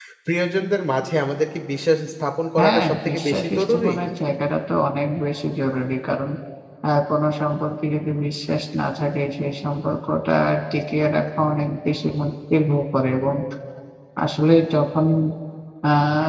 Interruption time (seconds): 2.6 s

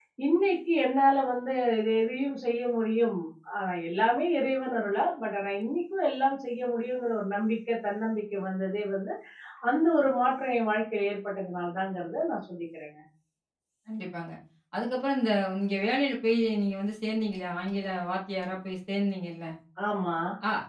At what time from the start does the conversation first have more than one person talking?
none

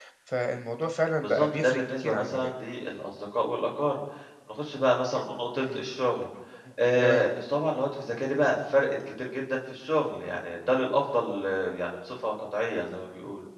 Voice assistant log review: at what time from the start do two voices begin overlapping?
1.2 s

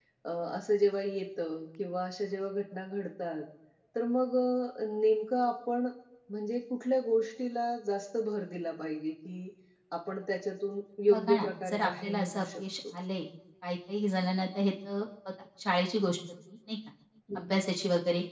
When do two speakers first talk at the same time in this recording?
11.1 s

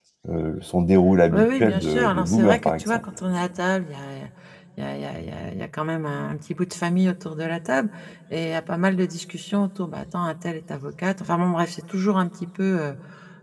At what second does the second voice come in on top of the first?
1.3 s

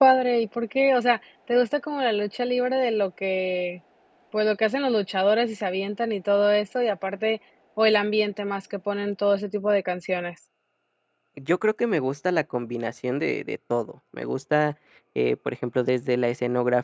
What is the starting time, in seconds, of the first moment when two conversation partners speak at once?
none

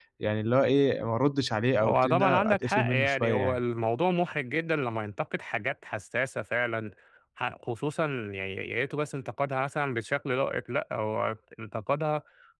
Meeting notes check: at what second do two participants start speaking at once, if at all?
1.8 s

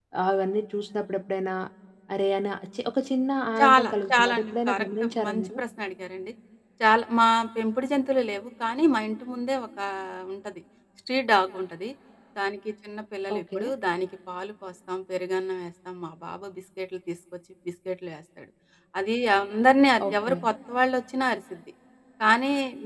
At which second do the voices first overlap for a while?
3.6 s

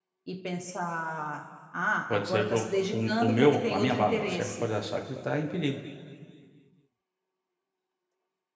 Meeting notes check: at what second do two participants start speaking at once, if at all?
2.1 s

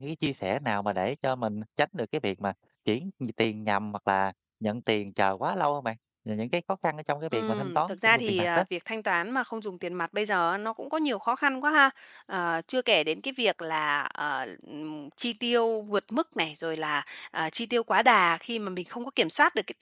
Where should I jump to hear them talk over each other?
7.3 s

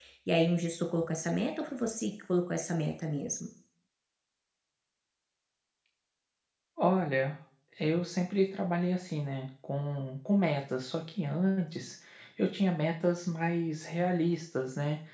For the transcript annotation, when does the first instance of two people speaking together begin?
none

